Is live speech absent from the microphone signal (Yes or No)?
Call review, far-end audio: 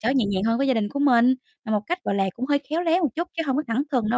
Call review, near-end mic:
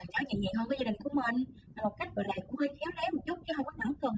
Yes